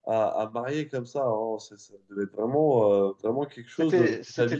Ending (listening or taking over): taking over